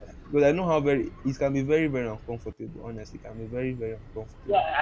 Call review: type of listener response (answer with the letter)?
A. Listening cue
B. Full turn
B